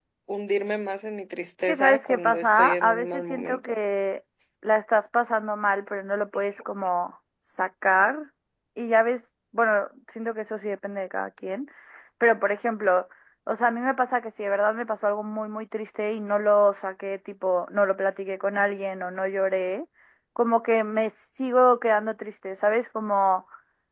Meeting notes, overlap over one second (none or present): present